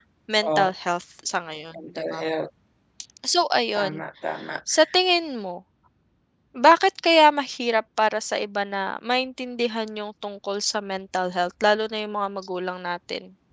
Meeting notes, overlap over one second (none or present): none